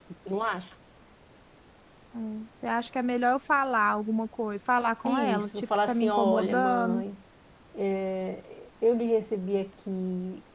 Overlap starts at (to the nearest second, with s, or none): 5 s